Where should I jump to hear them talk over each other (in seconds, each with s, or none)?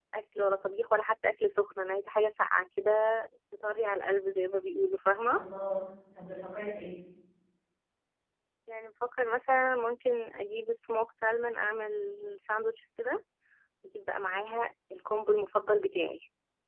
none